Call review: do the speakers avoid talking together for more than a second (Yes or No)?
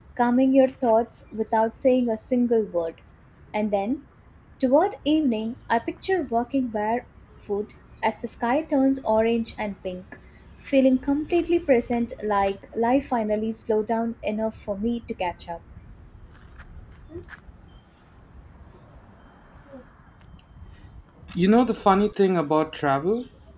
Yes